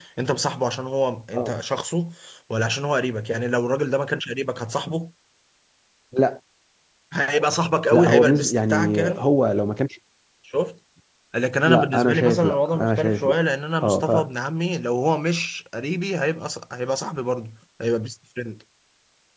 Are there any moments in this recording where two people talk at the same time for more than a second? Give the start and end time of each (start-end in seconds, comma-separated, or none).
7.9-9.2, 11.7-13.4